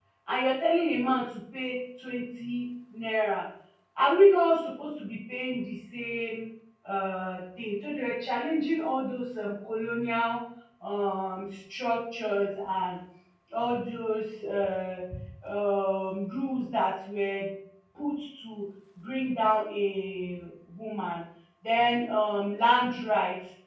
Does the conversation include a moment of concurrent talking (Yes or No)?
No